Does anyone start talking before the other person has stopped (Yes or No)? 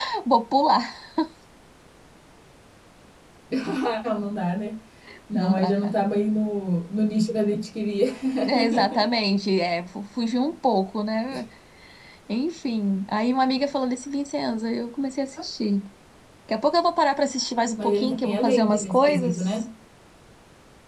Yes